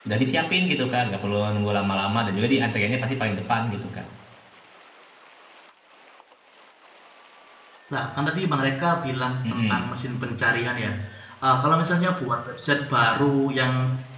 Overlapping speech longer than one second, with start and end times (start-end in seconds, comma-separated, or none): none